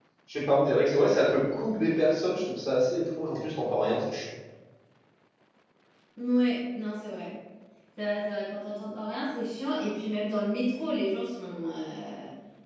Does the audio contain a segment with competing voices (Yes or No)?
No